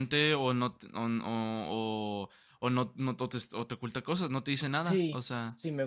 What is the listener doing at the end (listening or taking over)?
taking over